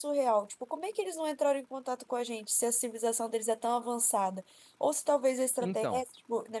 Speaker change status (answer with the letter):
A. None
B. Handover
A